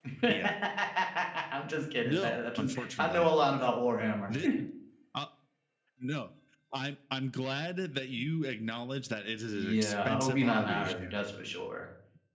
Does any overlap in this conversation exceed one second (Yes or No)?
Yes